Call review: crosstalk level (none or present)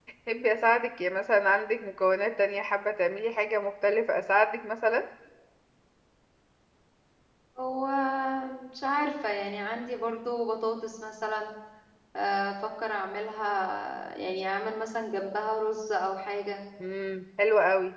none